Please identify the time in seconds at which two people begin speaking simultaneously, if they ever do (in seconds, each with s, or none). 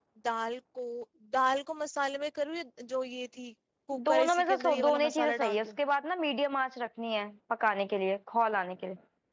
3.9 s